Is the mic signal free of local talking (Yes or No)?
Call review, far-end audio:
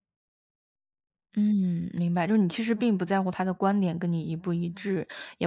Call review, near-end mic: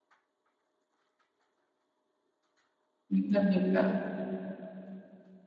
No